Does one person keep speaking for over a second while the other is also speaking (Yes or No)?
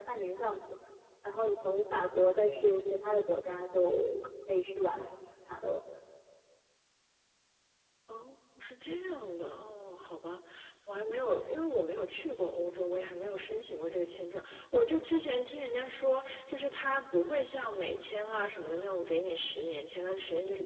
No